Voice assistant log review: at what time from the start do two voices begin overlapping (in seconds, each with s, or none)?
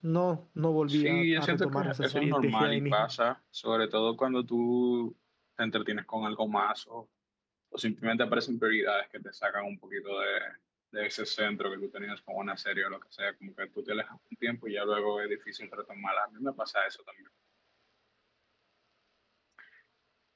0.9 s